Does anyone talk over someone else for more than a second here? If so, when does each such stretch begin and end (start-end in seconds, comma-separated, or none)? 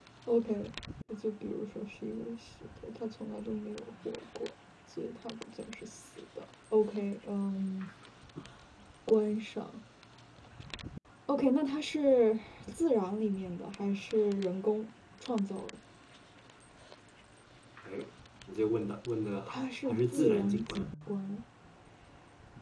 19.5-20.9